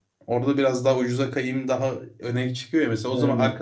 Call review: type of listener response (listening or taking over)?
listening